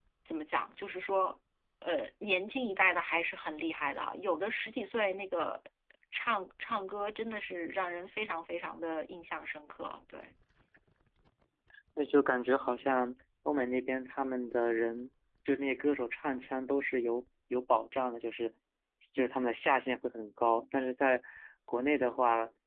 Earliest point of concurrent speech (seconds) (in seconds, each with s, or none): none